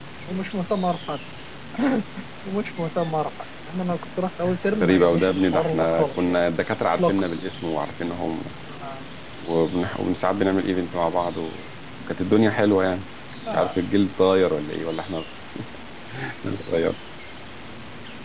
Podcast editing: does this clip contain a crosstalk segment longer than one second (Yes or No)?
Yes